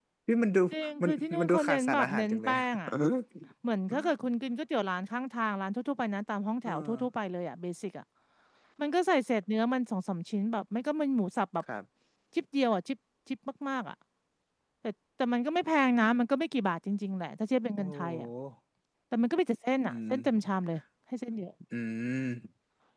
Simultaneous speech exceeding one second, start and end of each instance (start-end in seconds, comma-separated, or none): 1.0-2.5